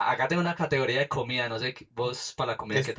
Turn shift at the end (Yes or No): Yes